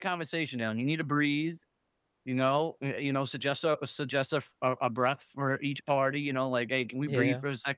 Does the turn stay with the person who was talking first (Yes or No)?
Yes